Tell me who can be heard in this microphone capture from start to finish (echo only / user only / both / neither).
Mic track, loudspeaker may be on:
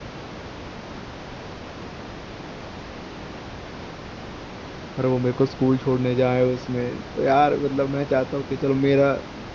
user only